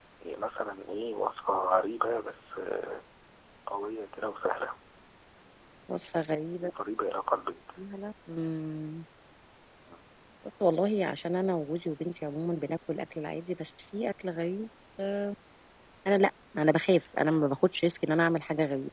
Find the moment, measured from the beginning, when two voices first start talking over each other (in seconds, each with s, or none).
none